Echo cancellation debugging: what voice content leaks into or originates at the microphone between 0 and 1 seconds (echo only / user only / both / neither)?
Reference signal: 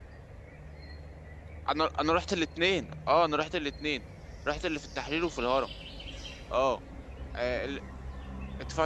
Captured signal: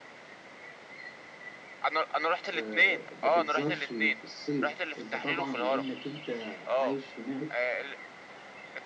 neither